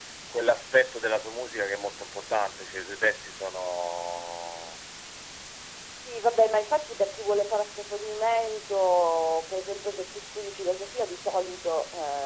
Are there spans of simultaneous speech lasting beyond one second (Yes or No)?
No